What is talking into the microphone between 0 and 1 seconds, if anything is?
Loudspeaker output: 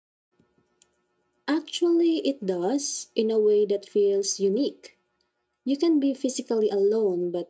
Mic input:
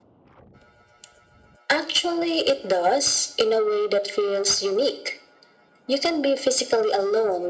neither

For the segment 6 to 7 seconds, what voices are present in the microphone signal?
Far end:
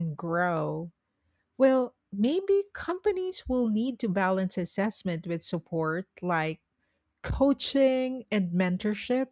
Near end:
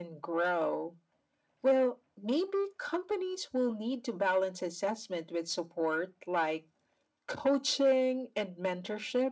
echo only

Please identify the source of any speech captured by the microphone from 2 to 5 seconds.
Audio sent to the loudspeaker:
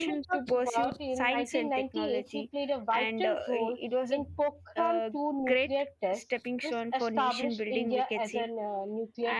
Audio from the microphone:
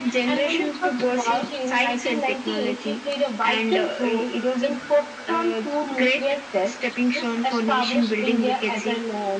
echo only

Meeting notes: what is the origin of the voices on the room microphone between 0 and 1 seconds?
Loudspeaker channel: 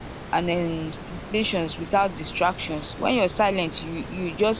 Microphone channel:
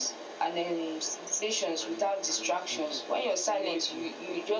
echo only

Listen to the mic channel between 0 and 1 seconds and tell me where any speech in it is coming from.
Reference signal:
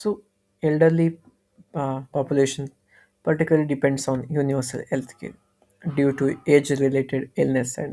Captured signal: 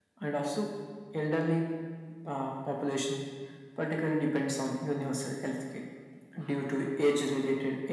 echo only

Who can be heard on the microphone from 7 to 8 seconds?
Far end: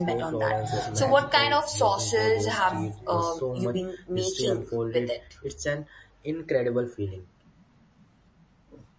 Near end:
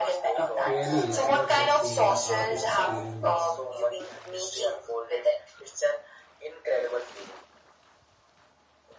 echo only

